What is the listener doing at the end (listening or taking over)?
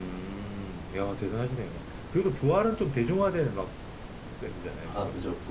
taking over